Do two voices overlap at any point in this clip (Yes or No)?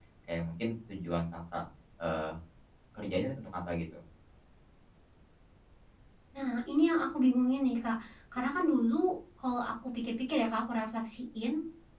No